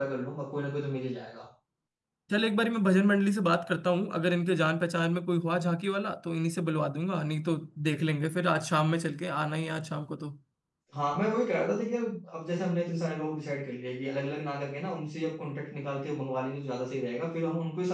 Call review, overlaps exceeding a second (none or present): none